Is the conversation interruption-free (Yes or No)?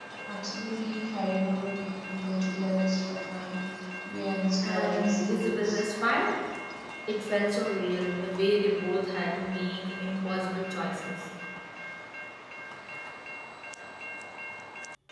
No